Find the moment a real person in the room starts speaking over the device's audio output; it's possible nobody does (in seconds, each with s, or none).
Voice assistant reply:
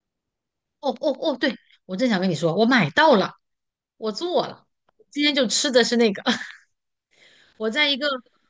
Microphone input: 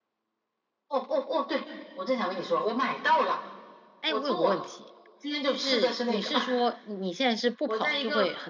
4.0 s